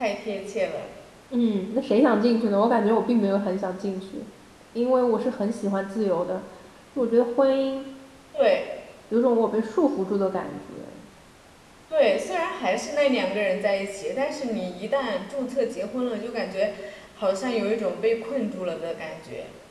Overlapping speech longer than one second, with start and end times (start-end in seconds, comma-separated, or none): none